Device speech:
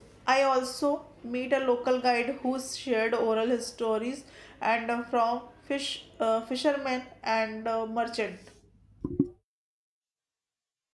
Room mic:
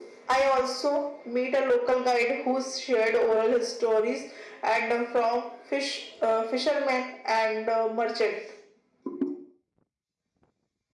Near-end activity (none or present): none